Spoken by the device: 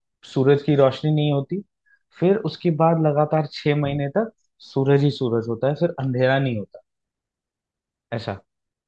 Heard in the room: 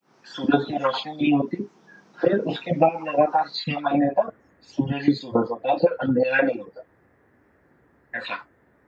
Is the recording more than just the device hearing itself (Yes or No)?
No